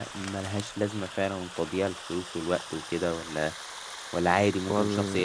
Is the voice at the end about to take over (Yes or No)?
Yes